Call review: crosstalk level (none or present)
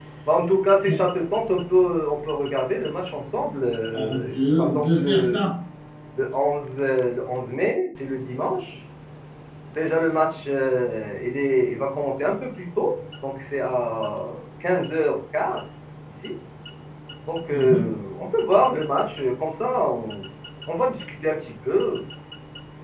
present